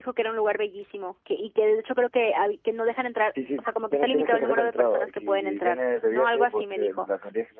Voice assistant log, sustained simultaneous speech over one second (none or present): present